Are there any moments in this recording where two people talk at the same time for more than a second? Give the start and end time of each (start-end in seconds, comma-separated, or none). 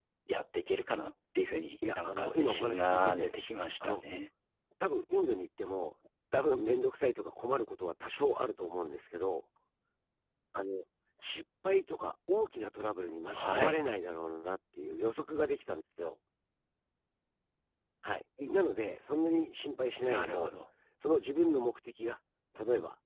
2.0-3.4